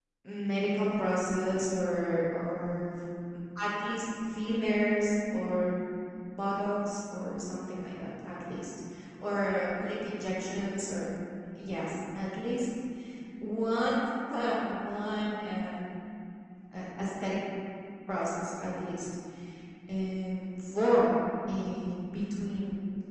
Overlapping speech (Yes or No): No